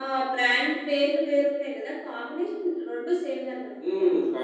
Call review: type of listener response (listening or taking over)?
taking over